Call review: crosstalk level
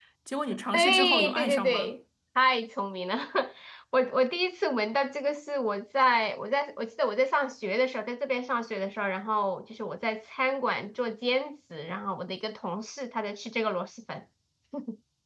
present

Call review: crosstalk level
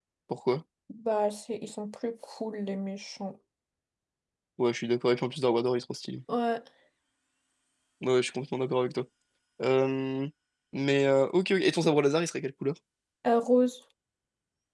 none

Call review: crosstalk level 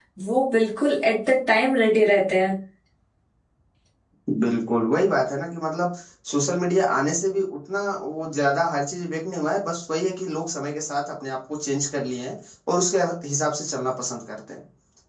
none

